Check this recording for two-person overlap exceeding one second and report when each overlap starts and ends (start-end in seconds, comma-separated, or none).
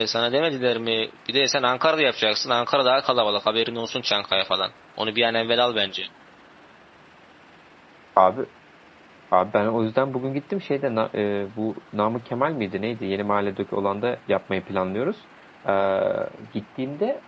none